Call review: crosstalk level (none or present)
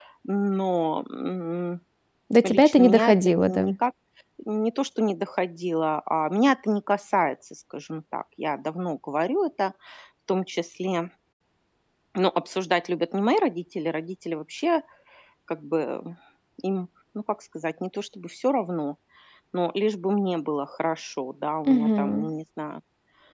present